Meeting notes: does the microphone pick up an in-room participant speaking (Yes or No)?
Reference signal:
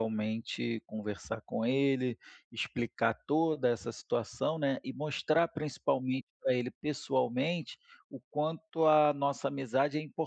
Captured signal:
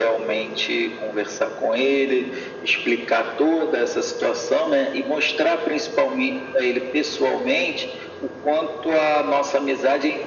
No